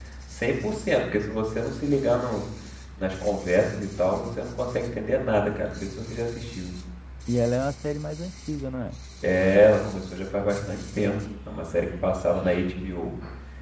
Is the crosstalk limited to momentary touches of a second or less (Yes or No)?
Yes